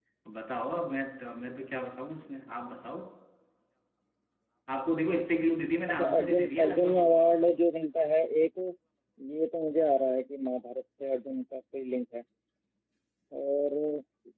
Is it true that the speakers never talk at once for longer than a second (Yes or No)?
No